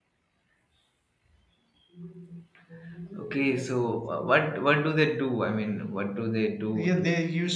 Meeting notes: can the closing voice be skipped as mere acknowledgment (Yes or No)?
No